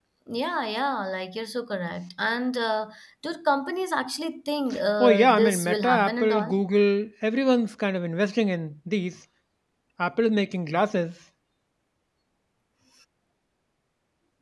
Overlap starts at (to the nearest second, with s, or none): 5 s